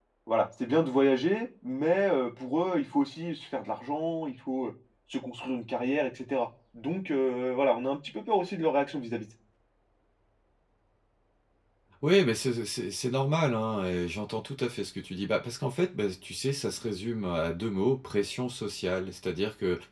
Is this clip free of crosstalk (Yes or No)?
Yes